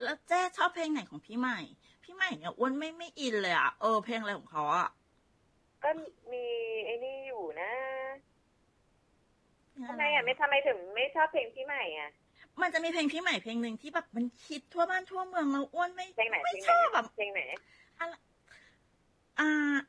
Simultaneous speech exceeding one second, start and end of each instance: none

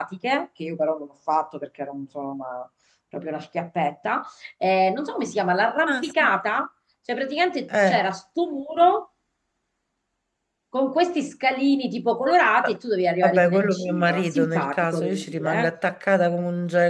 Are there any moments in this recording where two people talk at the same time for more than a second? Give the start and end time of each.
13.2-15.7

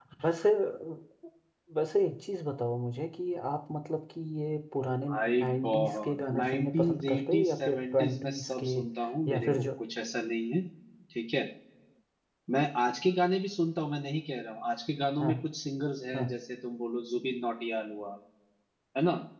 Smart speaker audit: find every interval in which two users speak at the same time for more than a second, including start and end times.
5.1-8.6

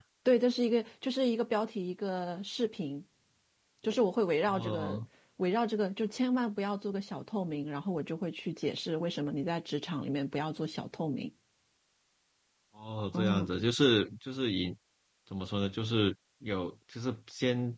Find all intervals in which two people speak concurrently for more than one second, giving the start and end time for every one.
none

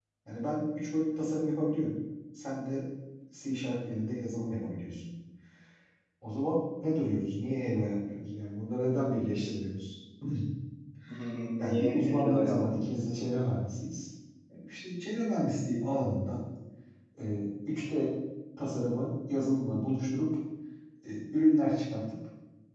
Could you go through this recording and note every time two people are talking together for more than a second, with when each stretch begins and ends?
11.6-12.9

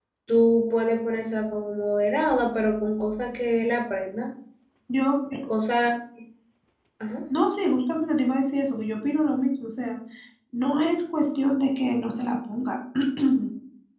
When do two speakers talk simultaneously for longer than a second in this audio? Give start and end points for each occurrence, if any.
none

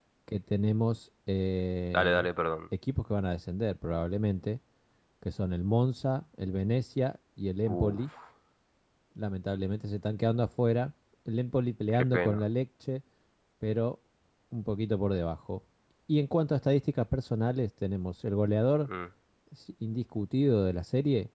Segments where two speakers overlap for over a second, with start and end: none

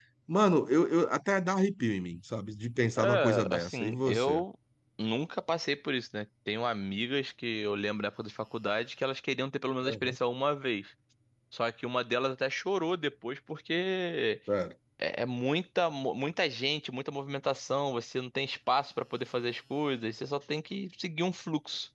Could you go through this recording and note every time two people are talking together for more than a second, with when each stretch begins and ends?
3.0-4.4

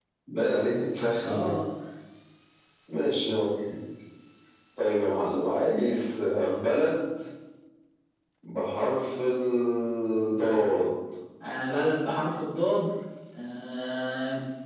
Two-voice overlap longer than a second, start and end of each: none

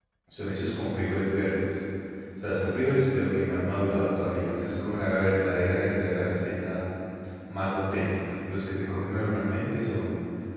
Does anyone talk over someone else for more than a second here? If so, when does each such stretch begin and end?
none

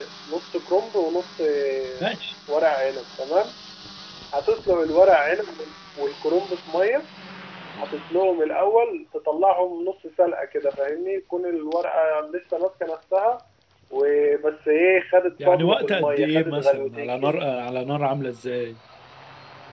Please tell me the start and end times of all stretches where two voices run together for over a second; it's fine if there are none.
15.4-17.3

